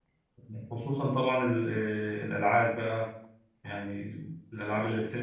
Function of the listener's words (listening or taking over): listening